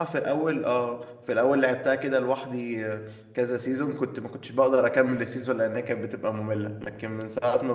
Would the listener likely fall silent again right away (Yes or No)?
Yes